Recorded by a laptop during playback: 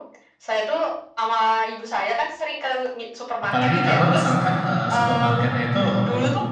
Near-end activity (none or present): present